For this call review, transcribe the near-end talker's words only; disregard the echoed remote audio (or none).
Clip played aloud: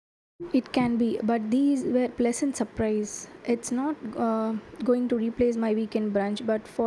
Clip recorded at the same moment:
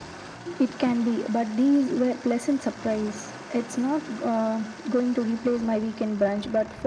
none